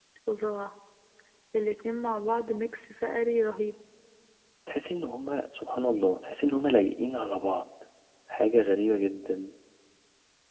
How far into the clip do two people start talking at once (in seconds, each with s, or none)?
none